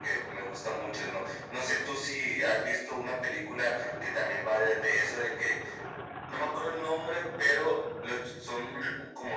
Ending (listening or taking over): listening